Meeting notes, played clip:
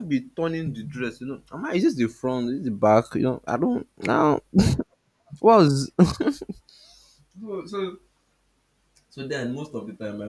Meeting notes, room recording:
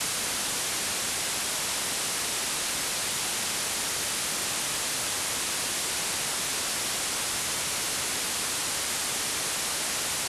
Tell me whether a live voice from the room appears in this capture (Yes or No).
No